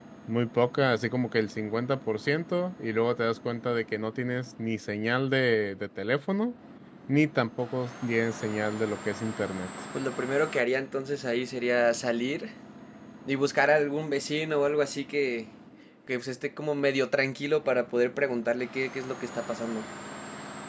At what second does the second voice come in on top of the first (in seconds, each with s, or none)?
none